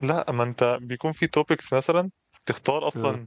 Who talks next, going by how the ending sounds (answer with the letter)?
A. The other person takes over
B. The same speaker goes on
B